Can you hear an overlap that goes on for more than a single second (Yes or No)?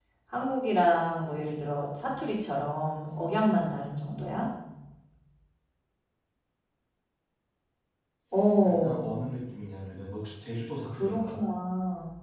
No